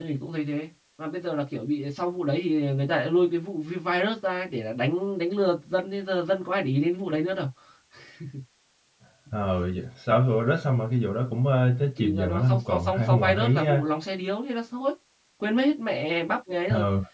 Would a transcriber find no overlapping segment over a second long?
No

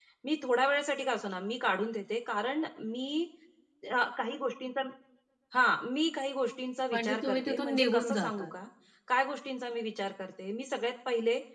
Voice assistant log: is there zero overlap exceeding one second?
No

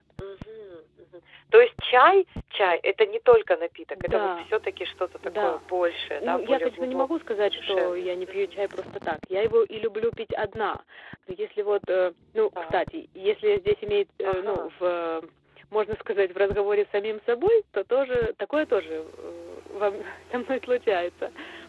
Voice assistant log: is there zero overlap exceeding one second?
No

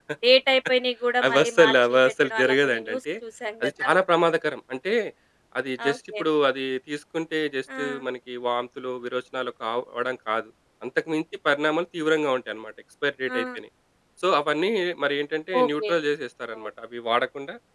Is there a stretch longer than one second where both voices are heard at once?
Yes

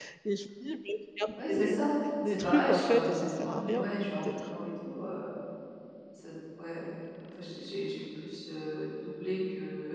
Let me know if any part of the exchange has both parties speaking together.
Yes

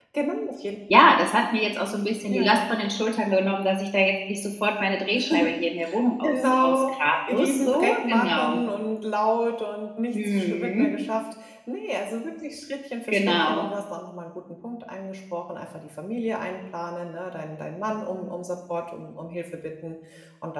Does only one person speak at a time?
No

